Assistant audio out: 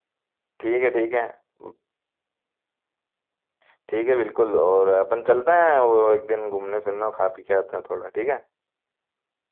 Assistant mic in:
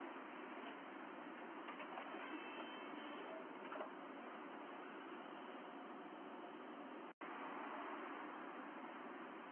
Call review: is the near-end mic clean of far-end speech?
Yes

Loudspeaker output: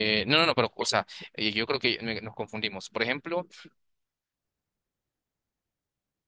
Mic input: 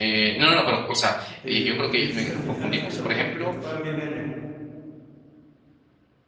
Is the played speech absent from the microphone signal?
No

